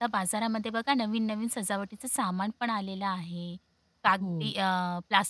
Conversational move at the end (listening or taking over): listening